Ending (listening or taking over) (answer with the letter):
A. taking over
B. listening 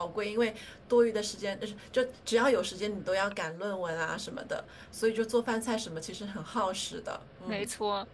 A